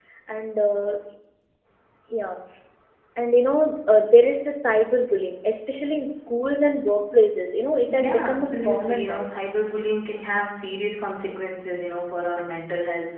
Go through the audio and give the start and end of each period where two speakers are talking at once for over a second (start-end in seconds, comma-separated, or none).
8.0-9.3